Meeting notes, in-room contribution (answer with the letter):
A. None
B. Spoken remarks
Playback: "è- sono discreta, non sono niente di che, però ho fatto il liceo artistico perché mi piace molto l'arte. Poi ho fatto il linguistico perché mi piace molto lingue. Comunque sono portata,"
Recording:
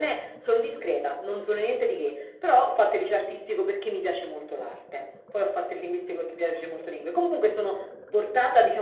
A